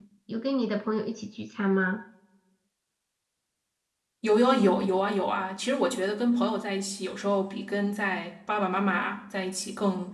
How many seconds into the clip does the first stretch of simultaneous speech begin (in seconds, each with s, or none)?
none